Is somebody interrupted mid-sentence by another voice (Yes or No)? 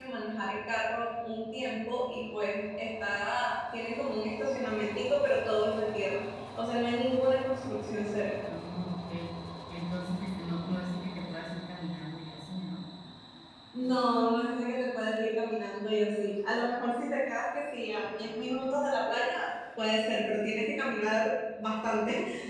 No